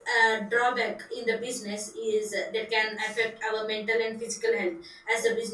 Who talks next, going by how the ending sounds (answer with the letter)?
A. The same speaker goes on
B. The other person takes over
A